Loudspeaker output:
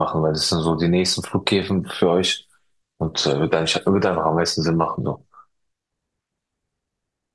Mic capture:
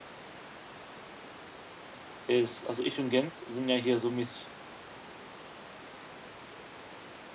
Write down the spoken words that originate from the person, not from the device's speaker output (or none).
ist, also ich und Gent sind ja hier so mäßig